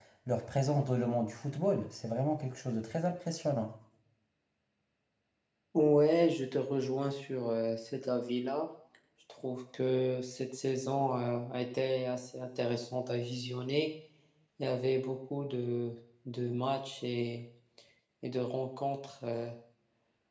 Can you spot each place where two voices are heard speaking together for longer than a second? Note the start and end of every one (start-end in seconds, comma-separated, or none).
none